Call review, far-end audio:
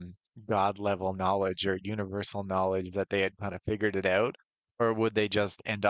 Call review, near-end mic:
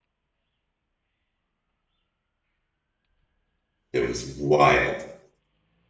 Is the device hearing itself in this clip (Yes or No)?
No